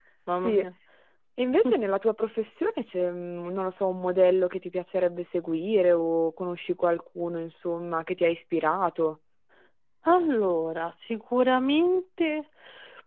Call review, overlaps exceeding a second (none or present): none